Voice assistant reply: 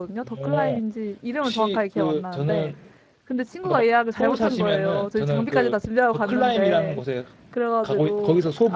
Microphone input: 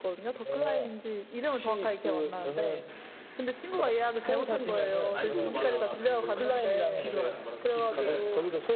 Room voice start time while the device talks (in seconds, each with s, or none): 5.1 s